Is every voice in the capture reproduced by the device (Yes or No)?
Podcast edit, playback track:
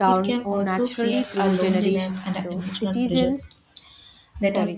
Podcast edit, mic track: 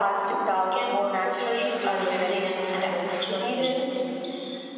Yes